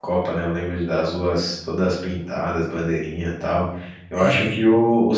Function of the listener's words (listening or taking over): listening